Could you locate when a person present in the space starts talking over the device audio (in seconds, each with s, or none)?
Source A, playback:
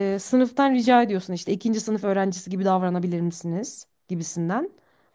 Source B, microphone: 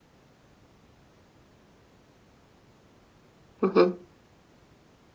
3.6 s